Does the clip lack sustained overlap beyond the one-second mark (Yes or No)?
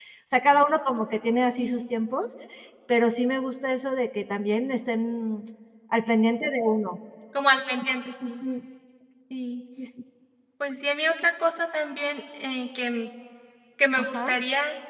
Yes